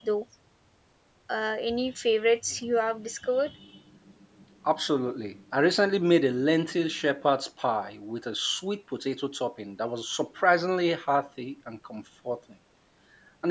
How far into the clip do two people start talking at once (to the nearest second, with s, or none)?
none